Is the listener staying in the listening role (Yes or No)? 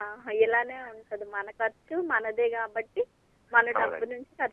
Yes